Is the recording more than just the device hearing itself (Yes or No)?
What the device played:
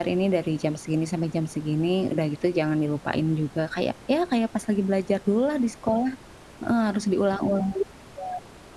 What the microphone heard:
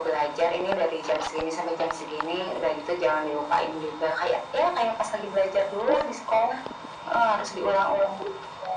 No